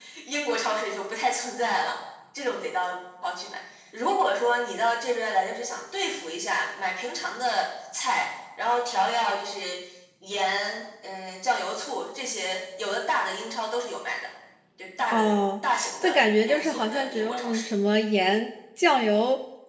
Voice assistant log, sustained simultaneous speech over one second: present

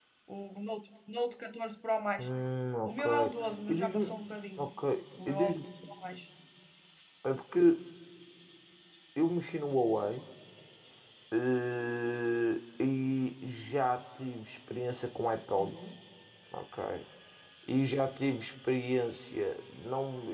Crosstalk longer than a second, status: none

